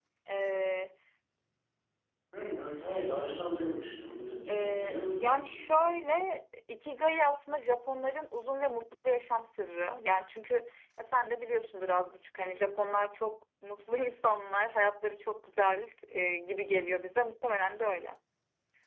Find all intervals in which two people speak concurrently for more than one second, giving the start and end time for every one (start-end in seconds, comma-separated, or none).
4.5-6.0